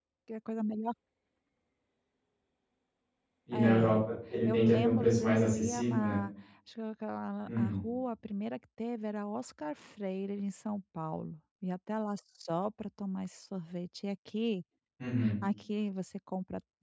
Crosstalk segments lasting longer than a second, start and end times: 4.5-6.2

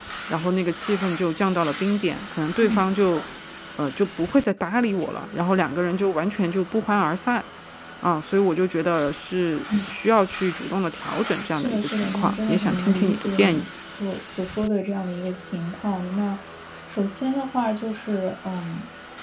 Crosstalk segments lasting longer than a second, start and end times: 11.5-13.6

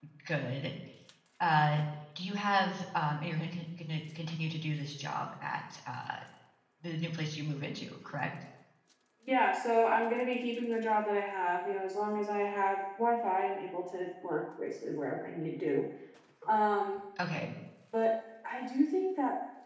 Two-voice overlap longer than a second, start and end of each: none

